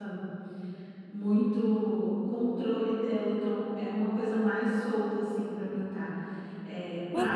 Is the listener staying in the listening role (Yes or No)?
No